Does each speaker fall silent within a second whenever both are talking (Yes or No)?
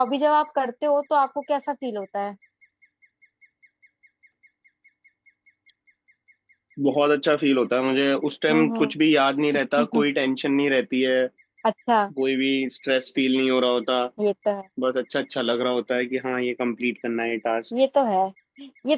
Yes